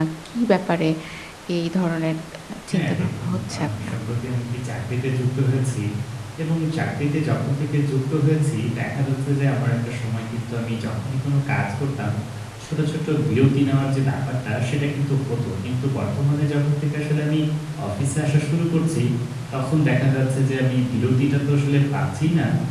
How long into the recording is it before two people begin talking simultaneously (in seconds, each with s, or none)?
2.7 s